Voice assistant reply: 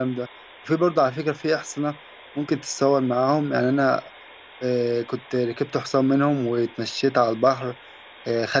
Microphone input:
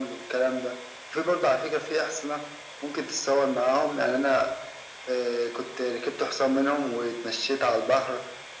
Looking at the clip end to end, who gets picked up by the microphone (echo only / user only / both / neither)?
echo only